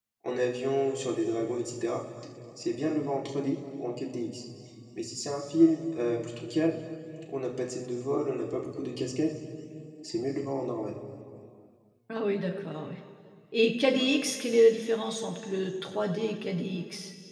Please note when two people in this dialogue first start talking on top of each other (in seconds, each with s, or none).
none